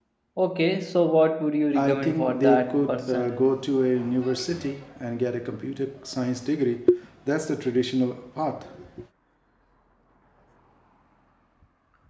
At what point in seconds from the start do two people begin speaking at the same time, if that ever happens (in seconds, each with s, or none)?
1.7 s